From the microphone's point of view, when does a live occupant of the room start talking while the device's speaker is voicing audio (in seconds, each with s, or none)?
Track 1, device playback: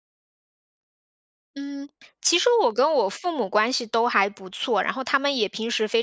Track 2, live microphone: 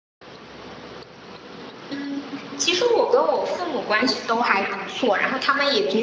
none